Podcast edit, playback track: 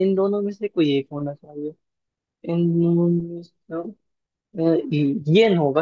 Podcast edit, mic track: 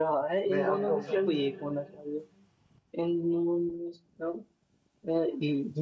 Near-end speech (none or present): present